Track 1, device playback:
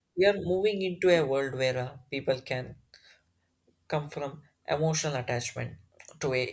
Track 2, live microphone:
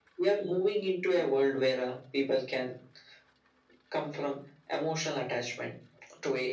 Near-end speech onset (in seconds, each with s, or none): none